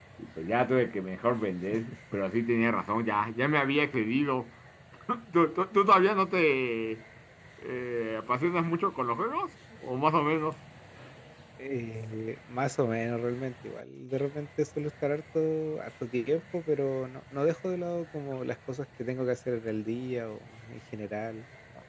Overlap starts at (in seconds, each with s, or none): none